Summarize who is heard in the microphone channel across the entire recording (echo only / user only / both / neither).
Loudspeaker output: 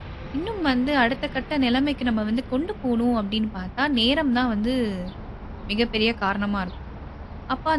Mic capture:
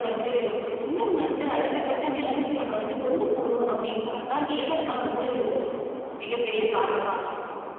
both